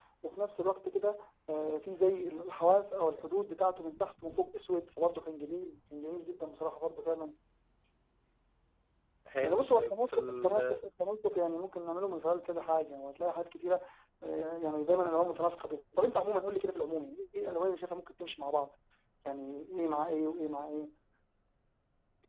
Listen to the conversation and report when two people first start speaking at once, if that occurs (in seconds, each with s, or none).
9.4 s